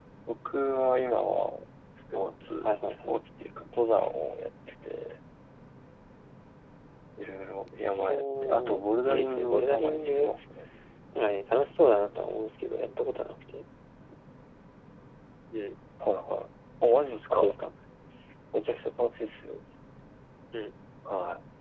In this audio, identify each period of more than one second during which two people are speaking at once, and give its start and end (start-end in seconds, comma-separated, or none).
8.0-10.3